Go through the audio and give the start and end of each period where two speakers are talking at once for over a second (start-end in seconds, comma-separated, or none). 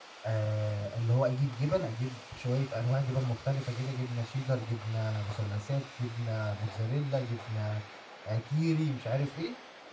none